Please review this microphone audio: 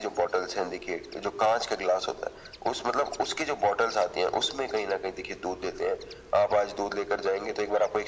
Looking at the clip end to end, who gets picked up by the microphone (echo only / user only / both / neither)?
echo only